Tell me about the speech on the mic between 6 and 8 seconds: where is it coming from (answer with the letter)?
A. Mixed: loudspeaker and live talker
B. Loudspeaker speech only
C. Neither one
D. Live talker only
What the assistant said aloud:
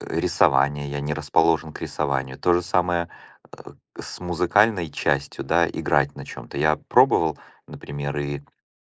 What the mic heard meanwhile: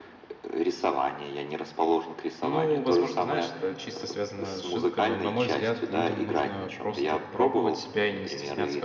A